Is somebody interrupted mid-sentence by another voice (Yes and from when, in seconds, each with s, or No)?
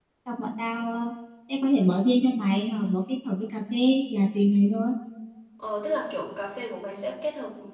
No